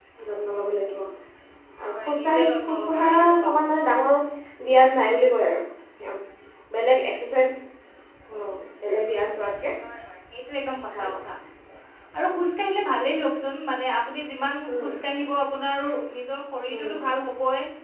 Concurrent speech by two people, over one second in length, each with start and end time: 1.8-3.5

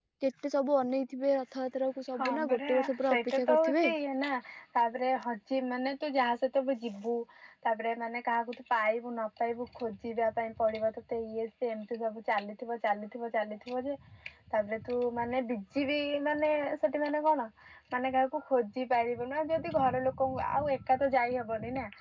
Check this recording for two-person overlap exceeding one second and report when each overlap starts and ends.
2.1-3.9

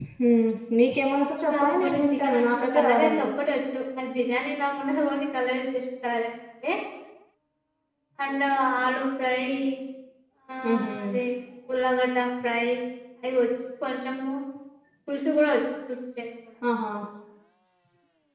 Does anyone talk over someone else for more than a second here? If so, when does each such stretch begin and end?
1.5-3.3

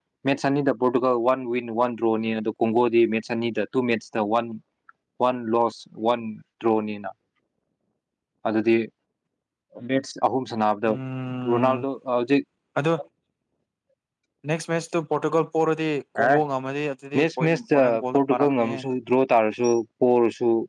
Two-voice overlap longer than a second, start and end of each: 17.1-18.8

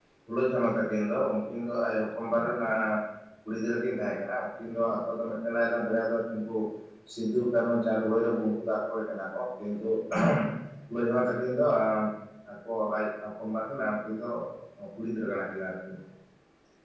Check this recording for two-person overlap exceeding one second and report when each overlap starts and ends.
none

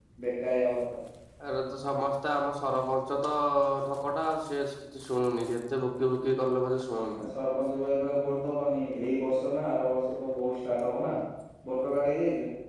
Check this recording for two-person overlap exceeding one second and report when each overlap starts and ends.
none

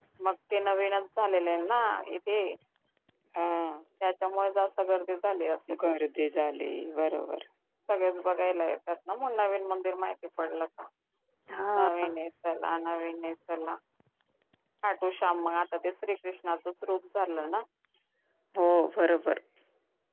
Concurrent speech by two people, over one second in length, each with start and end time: none

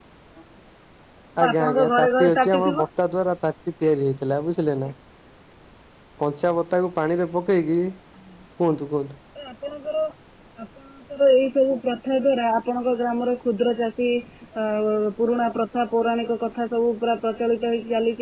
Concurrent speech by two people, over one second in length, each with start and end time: 1.5-2.8

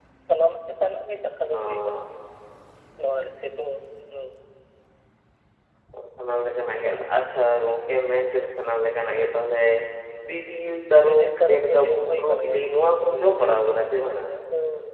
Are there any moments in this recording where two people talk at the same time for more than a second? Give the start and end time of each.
11.1-14.2

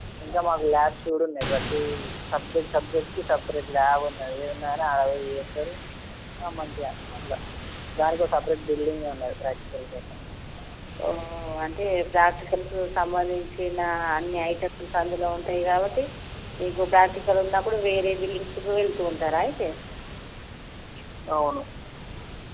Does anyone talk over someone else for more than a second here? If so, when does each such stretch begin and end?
none

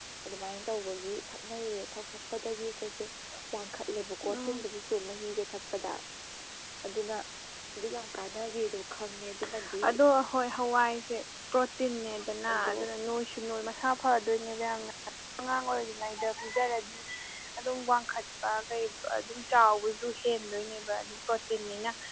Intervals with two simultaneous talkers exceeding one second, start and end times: none

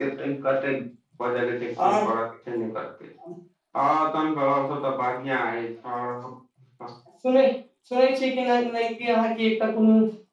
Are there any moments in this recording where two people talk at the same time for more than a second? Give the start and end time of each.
none

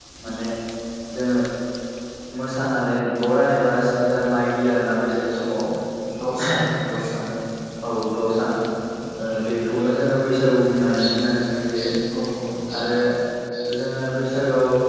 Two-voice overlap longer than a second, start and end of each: none

